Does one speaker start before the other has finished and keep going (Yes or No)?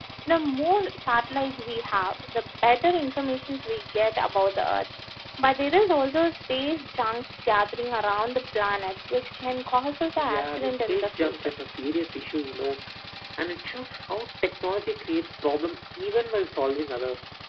Yes